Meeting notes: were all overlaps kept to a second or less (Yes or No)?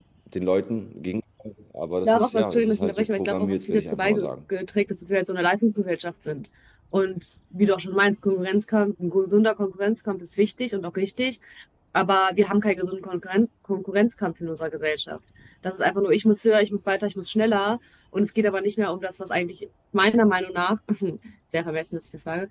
No